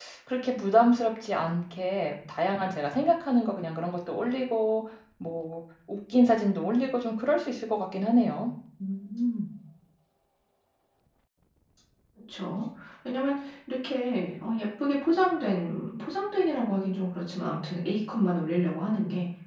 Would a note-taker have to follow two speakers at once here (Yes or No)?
No